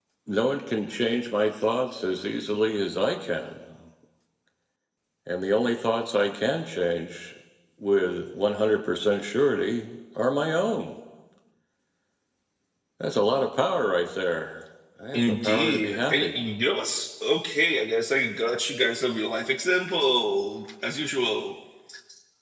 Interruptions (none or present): present